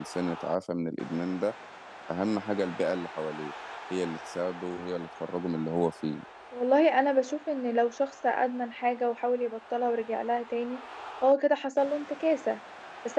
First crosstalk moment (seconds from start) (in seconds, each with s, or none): none